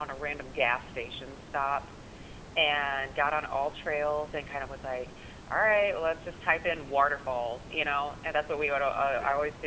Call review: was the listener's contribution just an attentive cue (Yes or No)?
Yes